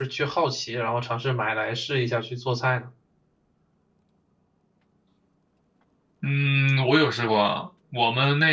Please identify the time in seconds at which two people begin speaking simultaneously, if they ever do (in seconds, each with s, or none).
none